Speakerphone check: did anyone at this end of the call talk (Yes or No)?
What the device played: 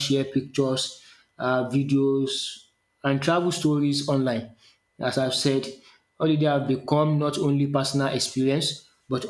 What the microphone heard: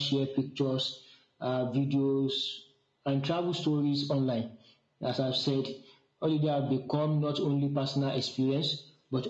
No